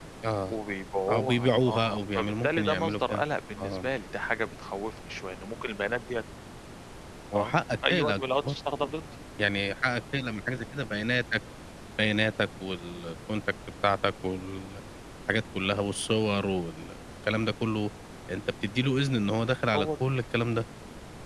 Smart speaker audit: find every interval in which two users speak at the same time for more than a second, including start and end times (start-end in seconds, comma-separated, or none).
1.1-3.2, 7.3-8.6